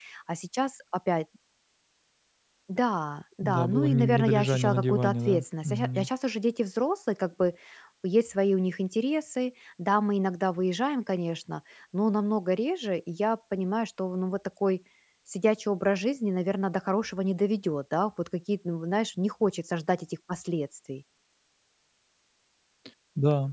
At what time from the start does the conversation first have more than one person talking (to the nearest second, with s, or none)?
3 s